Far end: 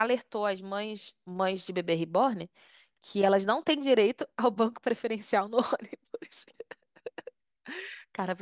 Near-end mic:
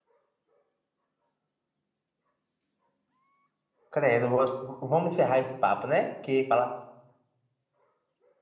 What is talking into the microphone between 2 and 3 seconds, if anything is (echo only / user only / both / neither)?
neither